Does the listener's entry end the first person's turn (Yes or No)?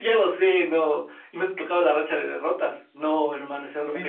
Yes